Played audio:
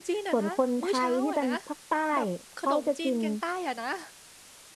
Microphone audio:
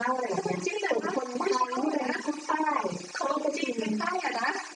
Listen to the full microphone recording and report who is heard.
echo only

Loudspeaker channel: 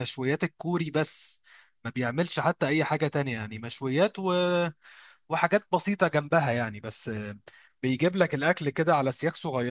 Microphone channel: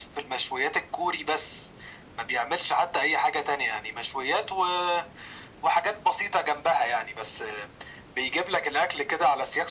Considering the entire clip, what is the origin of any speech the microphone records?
echo only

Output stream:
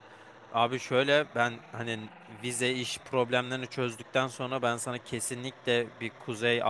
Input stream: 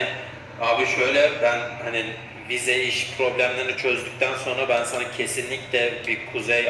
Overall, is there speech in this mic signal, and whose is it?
echo only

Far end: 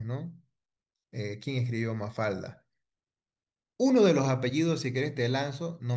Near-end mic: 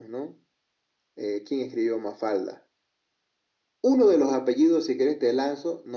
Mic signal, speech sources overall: echo only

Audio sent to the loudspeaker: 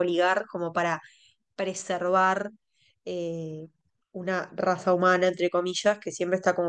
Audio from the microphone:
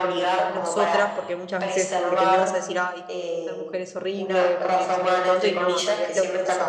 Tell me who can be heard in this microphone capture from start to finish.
both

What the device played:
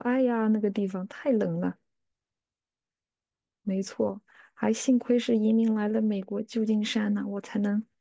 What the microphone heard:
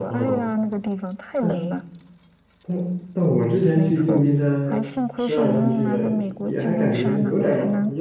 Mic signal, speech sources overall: both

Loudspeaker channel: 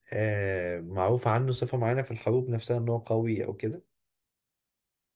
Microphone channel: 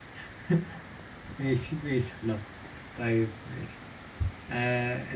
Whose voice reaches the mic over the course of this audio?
user only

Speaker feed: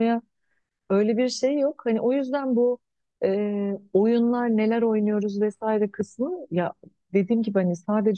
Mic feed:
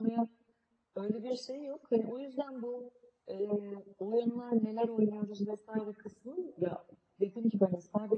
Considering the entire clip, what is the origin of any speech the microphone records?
echo only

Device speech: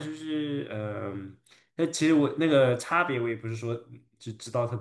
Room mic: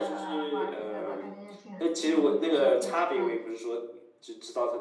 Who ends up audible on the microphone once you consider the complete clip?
both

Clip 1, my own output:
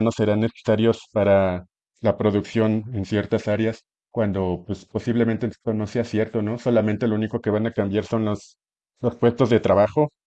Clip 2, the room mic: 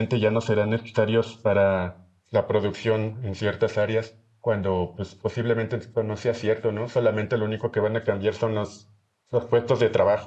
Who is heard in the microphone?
echo only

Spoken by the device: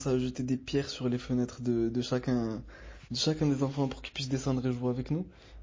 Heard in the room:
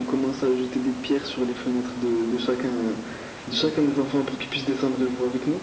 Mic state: echo only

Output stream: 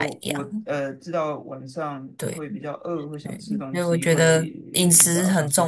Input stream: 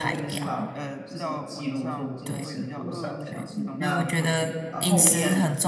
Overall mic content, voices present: both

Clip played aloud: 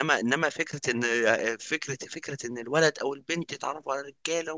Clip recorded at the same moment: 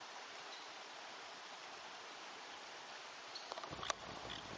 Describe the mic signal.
neither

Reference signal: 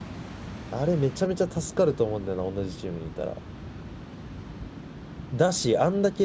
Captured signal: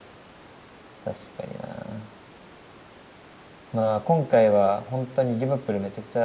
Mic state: user only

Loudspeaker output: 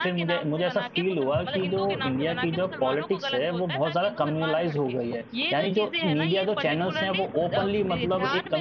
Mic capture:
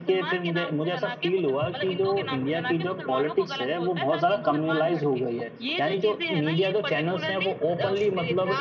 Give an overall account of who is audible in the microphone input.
echo only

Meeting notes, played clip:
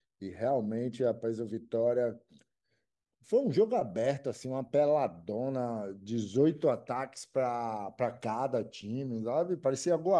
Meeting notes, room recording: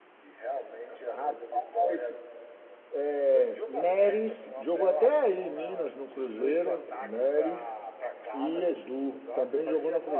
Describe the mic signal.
both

